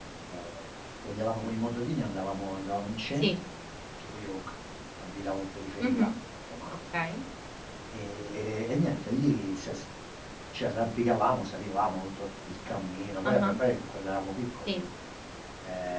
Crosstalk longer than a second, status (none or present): none